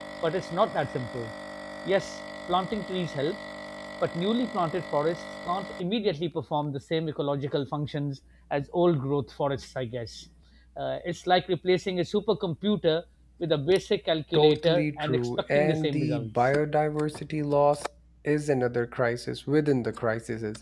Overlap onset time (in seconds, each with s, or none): 14.3 s